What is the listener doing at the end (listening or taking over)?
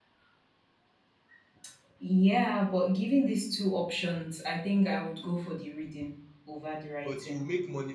taking over